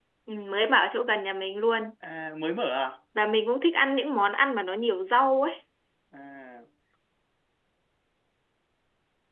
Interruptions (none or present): none